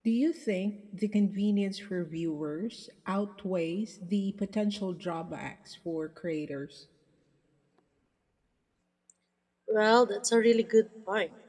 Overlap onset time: none

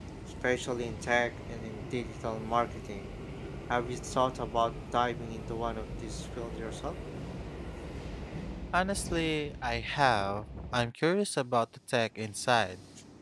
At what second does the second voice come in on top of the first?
none

